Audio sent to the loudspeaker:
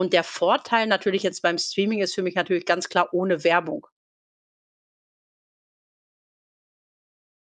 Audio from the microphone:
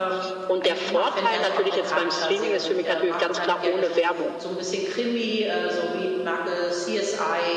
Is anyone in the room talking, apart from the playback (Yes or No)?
Yes